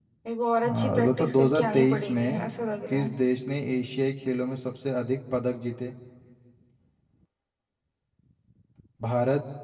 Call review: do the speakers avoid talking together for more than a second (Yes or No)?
No